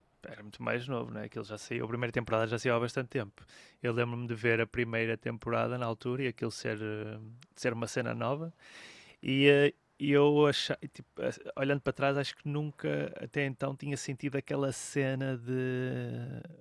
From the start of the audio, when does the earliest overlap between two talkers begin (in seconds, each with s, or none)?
none